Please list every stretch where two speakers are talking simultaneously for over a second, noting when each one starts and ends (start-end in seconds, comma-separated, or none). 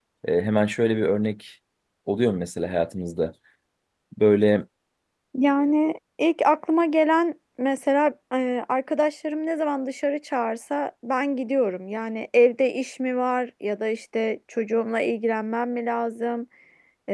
none